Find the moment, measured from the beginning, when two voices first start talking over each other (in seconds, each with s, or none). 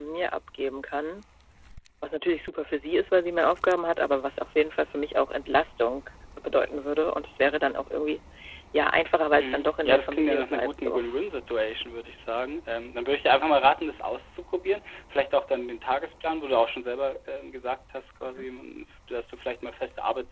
9.4 s